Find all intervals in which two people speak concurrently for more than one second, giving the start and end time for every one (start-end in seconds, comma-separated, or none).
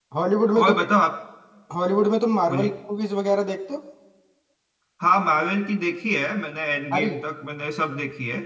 none